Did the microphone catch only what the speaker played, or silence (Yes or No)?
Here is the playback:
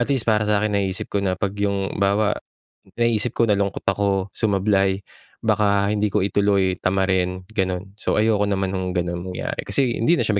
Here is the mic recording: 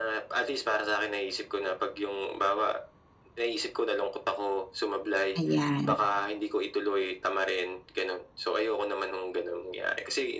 No